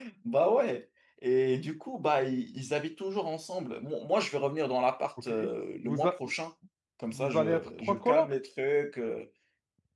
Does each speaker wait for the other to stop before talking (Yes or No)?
No